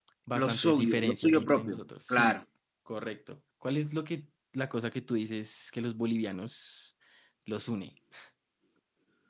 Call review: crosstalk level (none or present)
present